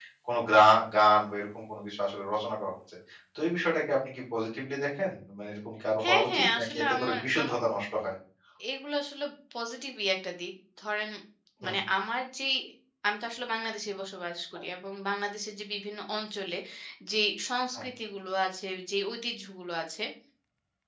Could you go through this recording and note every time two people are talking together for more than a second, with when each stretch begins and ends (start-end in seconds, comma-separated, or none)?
6.0-7.6